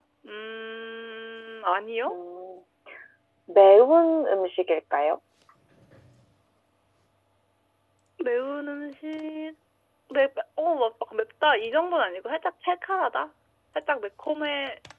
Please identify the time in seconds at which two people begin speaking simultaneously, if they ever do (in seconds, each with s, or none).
none